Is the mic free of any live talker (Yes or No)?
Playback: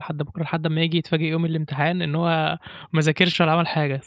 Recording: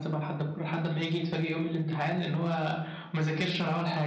Yes